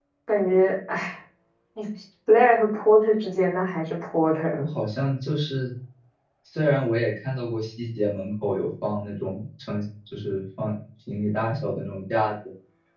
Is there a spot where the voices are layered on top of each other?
No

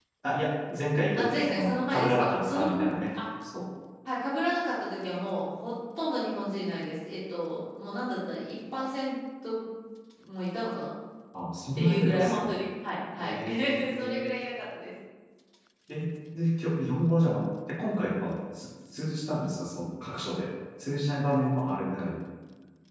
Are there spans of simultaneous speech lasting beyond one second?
Yes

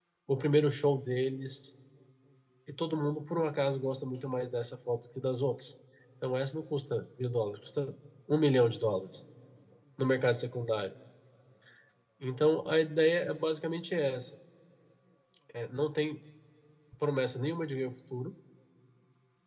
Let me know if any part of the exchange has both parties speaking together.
No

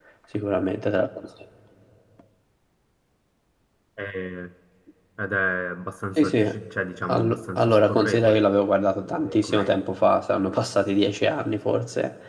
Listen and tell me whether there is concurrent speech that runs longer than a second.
Yes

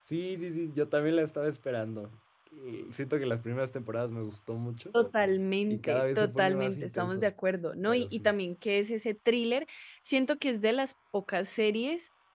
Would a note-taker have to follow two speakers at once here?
Yes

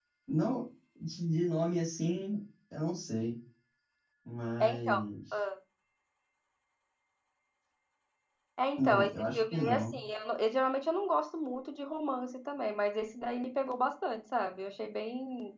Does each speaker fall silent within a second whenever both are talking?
No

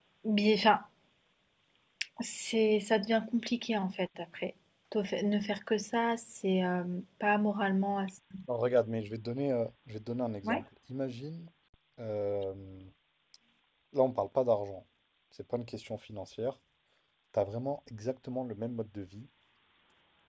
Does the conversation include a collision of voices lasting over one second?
No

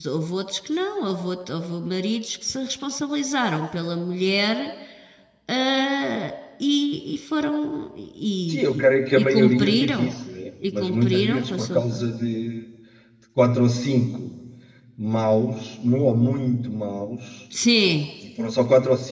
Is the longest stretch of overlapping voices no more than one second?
No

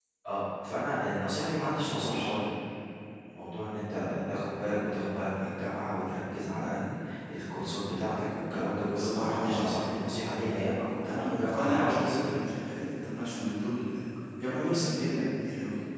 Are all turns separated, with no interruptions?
No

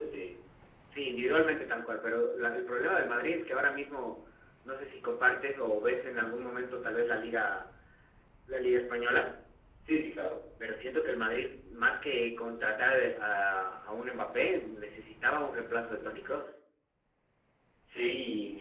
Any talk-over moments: No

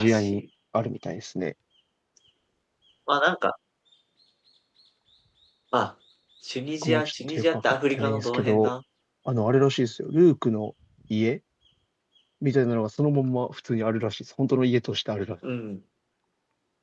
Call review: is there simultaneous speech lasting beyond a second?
Yes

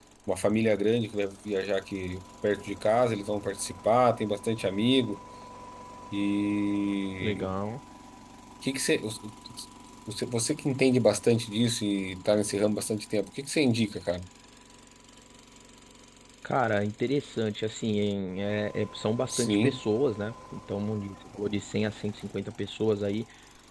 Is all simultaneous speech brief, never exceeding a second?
Yes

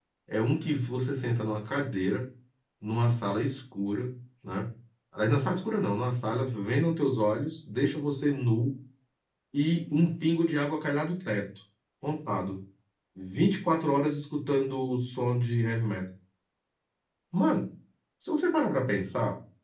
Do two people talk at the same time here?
No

